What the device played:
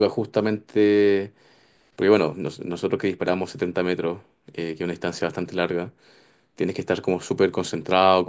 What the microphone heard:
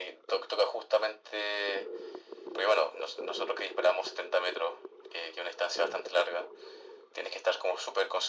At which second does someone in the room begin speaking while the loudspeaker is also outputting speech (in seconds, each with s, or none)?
none